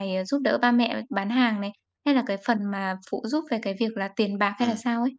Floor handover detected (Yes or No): Yes